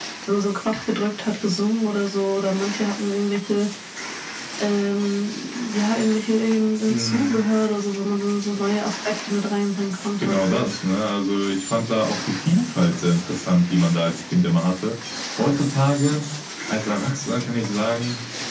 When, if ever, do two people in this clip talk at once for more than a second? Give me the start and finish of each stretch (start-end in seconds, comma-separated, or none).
none